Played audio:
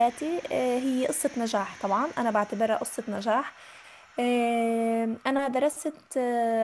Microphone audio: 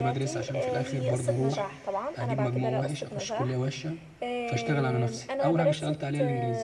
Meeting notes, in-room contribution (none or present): present